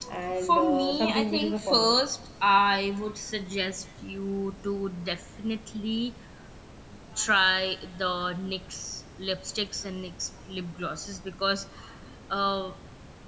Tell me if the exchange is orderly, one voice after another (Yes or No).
No